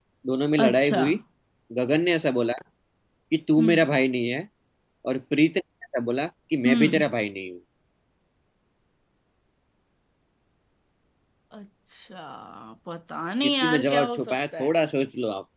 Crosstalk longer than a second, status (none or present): present